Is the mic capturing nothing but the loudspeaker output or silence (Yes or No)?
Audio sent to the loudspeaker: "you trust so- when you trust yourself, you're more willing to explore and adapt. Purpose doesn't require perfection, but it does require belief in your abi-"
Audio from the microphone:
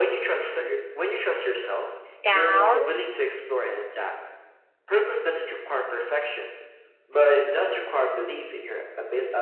No